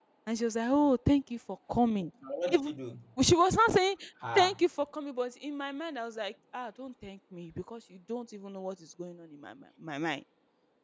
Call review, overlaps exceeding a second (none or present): none